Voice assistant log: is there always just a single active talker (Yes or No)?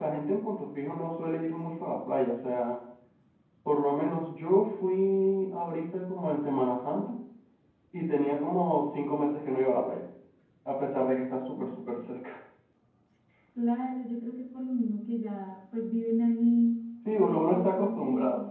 No